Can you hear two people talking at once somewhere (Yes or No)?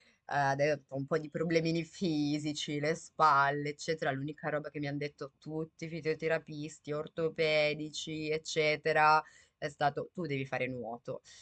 No